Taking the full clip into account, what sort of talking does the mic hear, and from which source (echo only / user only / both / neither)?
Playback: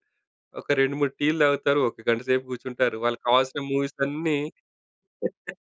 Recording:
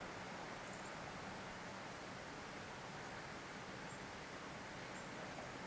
neither